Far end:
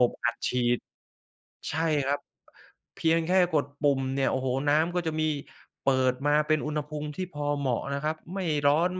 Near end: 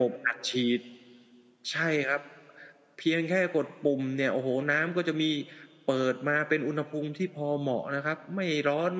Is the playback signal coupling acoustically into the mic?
Yes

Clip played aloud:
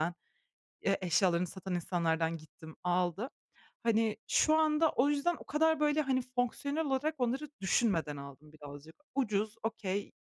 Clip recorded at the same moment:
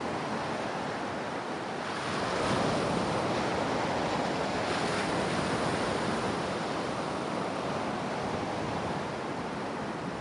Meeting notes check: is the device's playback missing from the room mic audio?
Yes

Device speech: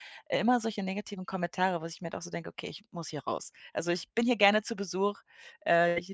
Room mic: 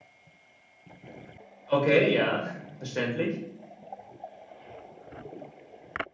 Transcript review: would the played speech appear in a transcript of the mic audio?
No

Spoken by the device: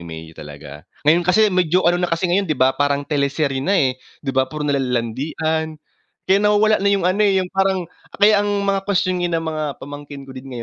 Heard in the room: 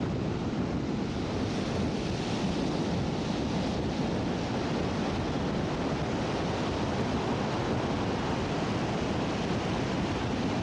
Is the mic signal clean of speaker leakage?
Yes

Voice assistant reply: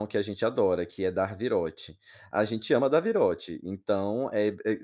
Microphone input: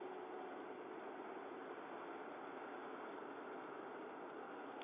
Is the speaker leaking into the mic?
No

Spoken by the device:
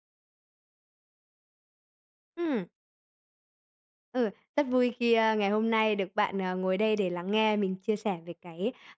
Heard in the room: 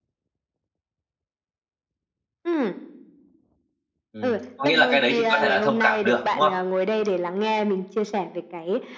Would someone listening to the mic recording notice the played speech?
Yes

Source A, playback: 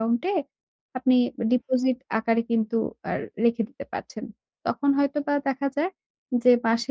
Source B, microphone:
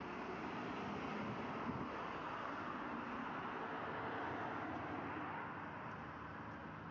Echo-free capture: Yes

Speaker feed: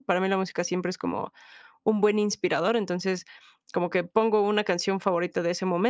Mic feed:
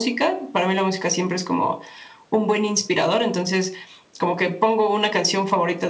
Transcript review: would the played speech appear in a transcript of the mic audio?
Yes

